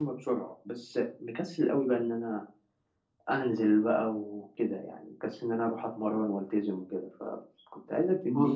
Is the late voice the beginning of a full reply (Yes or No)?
No